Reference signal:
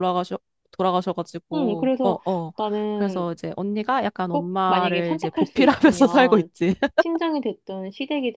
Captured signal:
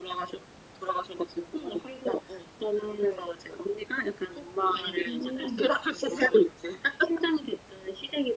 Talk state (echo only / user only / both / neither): both